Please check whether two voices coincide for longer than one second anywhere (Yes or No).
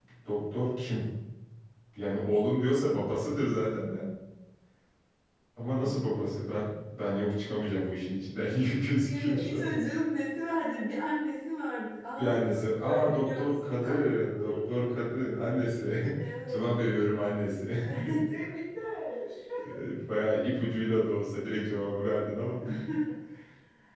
Yes